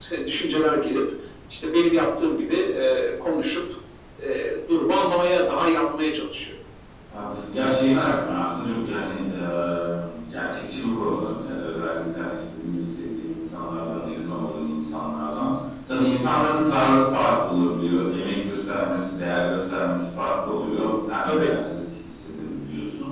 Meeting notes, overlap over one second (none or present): none